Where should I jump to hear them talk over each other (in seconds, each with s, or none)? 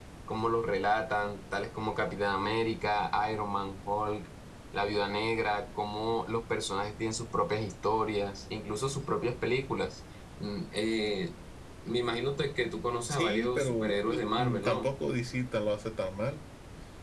13.0 s